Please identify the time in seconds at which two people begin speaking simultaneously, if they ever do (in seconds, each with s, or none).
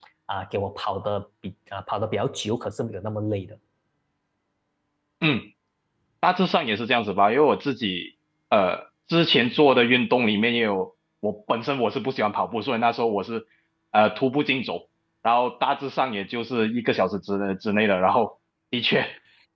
none